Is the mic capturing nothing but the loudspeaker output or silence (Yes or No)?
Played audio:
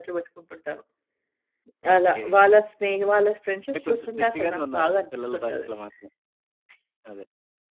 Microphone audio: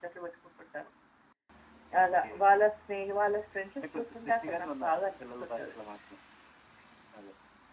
Yes